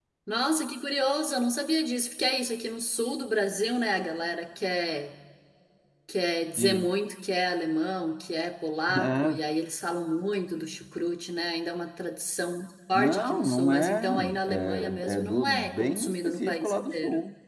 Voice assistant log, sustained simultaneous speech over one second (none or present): present